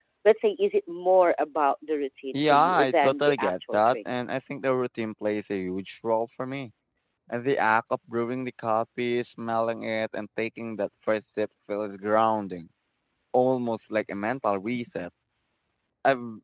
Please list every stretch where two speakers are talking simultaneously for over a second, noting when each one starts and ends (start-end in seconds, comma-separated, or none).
2.3-4.0